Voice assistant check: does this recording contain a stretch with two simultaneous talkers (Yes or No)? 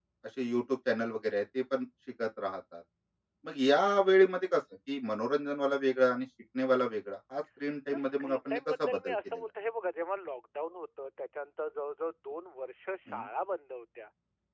Yes